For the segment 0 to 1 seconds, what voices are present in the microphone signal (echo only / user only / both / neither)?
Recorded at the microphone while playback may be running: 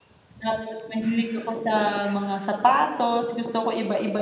user only